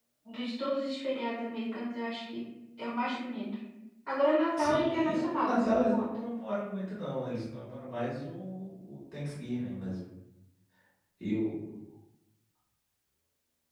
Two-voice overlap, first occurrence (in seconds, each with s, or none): 4.6 s